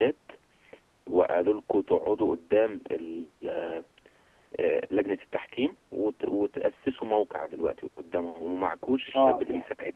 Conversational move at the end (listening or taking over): taking over